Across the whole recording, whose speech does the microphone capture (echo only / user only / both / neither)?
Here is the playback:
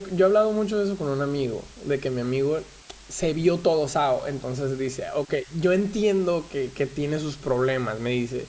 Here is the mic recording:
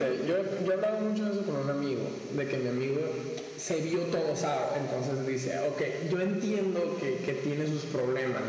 echo only